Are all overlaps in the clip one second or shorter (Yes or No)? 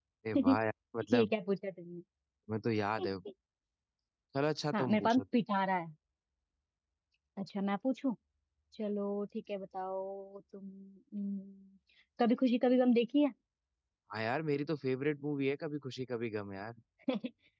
Yes